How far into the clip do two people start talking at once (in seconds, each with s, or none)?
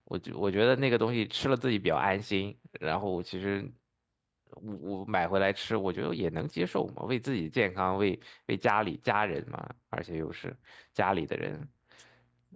none